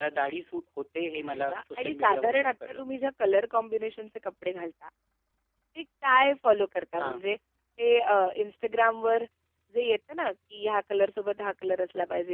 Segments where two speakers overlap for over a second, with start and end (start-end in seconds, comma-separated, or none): 1.2-2.8